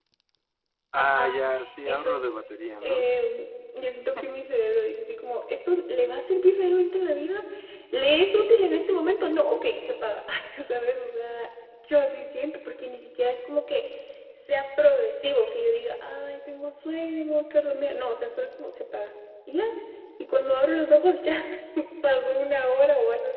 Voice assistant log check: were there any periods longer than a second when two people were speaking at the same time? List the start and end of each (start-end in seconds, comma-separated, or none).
none